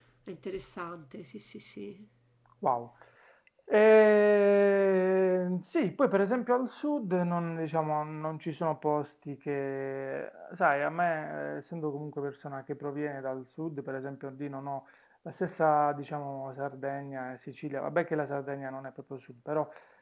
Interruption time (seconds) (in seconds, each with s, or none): none